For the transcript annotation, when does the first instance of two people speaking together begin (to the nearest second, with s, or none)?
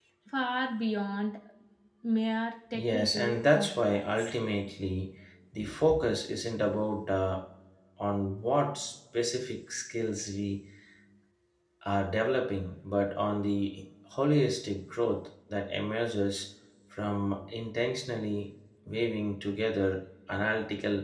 3 s